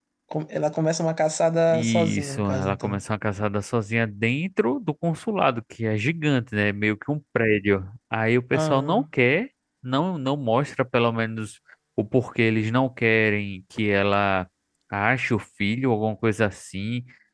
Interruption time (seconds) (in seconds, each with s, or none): 1.8 s